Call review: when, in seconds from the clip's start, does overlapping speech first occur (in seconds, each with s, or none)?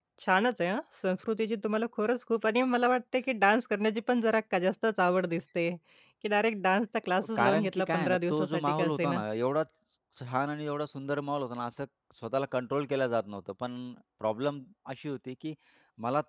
7.4 s